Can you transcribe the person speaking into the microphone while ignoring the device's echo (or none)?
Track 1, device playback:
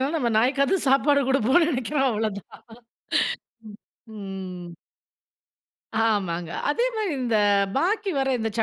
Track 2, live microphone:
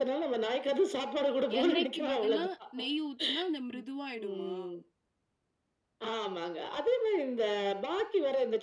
எண்ணெய்க்கு பதிலா நெய் ஊத்துனா, அந்த மிருதுவாயிடுமா?